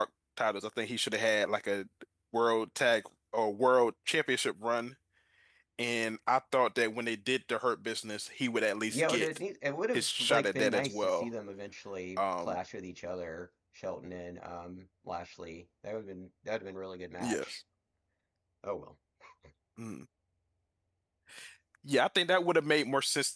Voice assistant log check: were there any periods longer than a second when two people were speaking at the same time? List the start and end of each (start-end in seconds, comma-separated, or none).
9.9-11.3